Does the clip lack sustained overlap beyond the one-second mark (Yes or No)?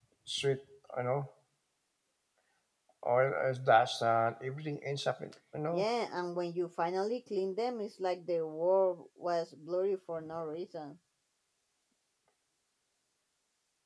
Yes